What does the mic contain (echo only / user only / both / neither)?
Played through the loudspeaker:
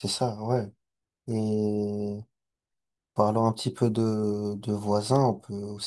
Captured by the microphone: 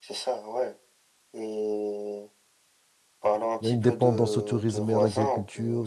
both